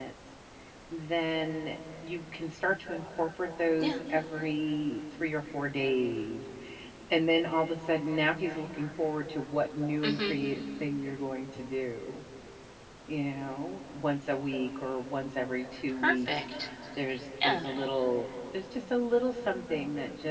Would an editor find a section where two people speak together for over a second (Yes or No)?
No